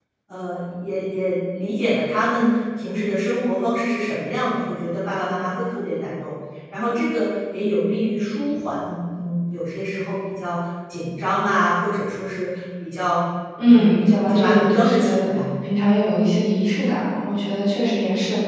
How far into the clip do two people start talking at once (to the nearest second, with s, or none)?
14 s